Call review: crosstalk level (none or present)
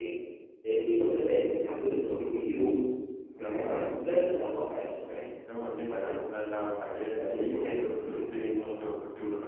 present